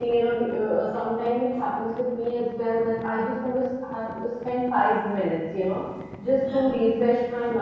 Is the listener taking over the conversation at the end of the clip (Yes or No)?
No